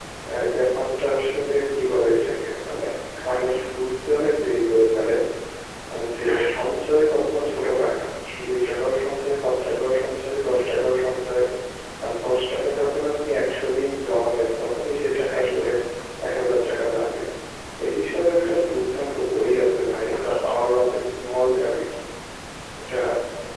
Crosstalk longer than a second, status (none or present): none